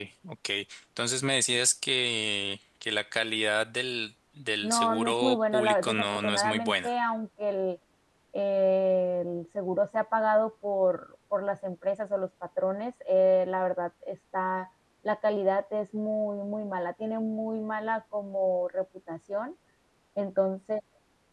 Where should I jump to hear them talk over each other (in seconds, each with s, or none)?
4.6 s